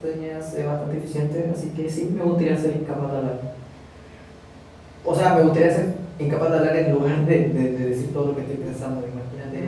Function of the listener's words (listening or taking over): taking over